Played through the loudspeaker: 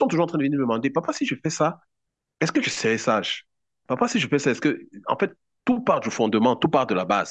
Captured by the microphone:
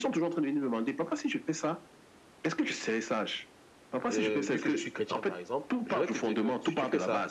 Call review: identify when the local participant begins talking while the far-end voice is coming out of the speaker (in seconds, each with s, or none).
4.1 s